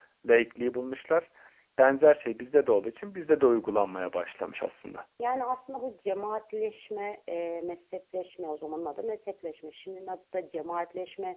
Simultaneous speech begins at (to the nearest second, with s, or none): none